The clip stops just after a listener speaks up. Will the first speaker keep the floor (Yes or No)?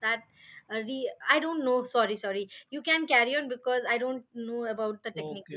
No